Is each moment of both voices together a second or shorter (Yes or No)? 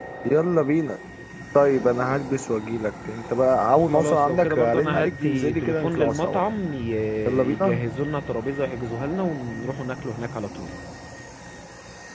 No